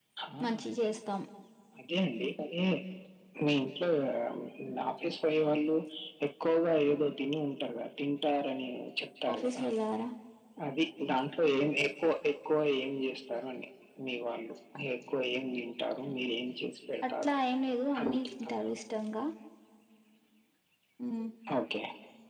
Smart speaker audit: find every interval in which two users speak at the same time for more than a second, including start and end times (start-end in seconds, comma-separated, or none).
none